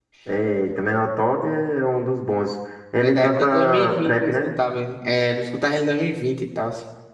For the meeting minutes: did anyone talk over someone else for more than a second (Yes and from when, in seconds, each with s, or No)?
Yes, from 3.0 s